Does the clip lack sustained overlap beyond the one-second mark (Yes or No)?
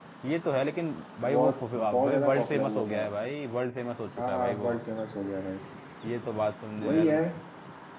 No